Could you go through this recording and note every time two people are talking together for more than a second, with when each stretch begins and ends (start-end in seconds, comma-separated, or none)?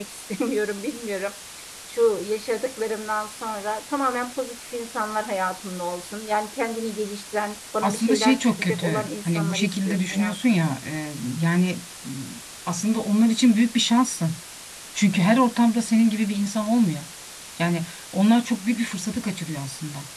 7.8-10.7